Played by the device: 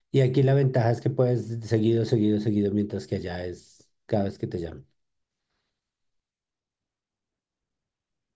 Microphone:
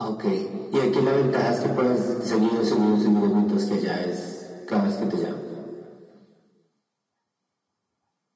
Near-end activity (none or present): none